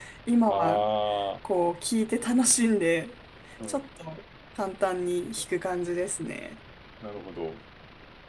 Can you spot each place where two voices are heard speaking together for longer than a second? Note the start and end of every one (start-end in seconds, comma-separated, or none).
none